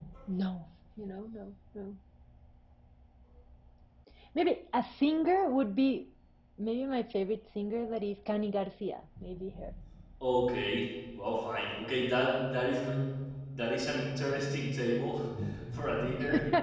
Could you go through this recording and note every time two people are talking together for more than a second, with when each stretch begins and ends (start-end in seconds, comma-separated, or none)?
none